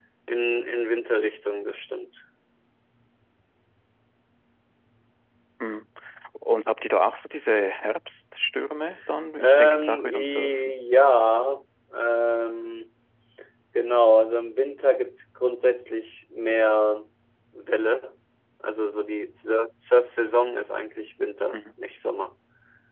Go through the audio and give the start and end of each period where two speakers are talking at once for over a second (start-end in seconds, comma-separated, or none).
9.4-10.7